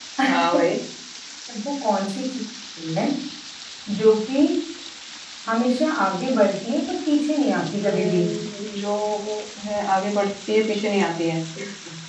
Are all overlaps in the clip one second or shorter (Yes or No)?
Yes